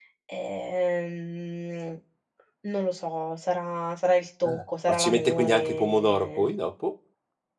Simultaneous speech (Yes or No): Yes